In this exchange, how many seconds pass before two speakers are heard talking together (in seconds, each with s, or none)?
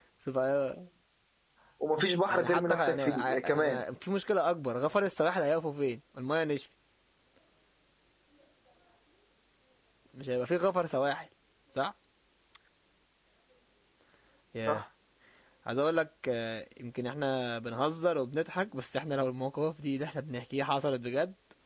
2.3 s